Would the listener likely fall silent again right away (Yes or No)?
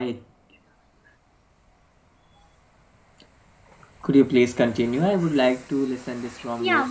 No